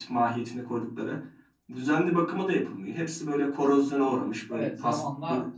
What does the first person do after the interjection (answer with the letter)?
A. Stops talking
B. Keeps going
A